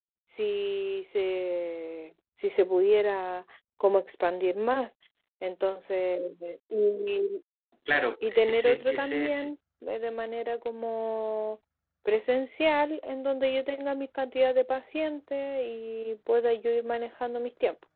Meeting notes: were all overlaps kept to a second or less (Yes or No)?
No